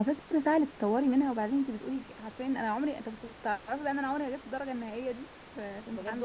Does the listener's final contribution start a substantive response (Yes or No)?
Yes